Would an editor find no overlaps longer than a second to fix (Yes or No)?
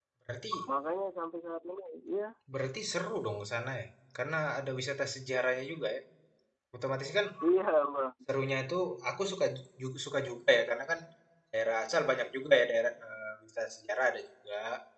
Yes